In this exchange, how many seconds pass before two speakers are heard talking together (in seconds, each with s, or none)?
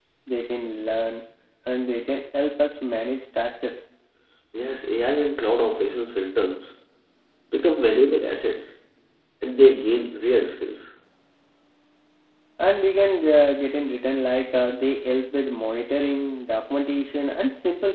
none